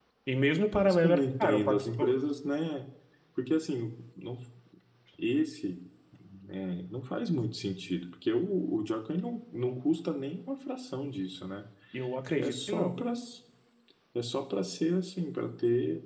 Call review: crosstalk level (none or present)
present